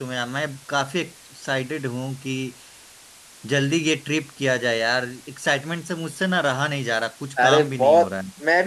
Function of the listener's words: taking over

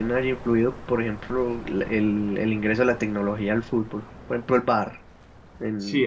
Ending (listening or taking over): taking over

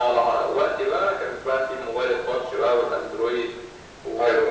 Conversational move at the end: listening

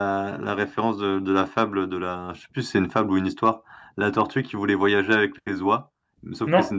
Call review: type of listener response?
listening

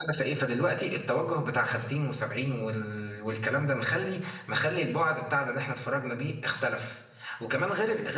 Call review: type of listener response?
listening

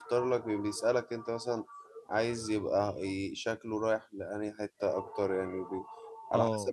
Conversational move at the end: listening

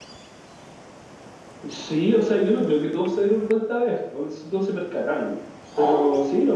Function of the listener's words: listening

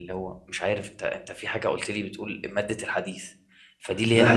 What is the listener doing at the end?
listening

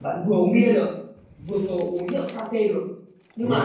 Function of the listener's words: listening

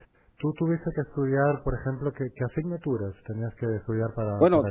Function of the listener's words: taking over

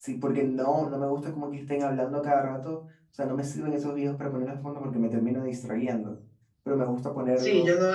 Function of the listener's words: taking over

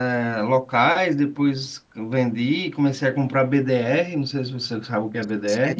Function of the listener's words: taking over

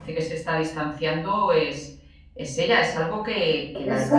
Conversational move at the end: taking over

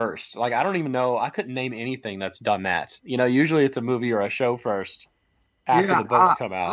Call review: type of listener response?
taking over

